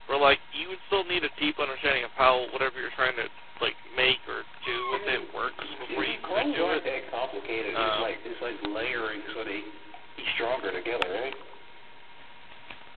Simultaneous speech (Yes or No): Yes